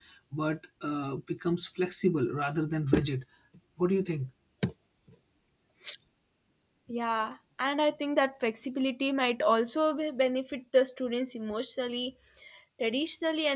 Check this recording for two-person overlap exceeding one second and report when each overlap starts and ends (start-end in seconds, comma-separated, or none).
none